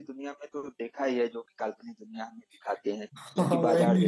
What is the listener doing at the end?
taking over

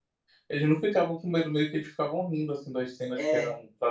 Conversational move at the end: listening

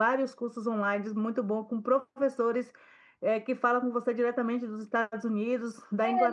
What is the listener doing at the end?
taking over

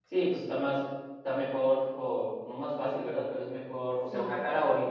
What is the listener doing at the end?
listening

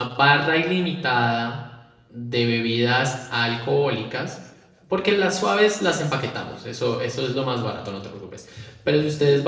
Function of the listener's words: listening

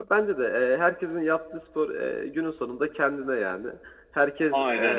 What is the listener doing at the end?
listening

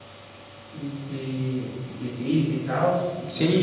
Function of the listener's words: taking over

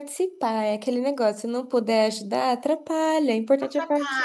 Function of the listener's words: taking over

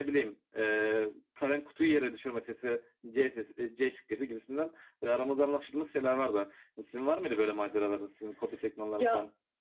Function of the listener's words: taking over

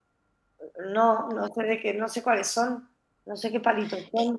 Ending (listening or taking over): taking over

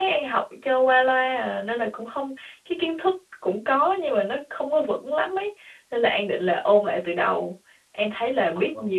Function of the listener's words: listening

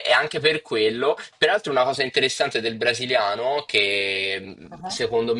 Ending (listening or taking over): listening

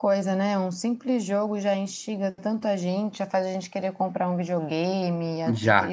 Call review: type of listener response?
taking over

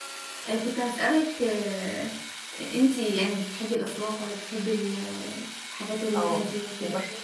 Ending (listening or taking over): taking over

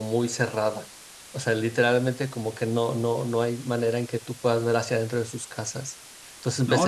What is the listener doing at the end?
taking over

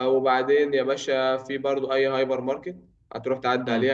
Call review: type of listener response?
listening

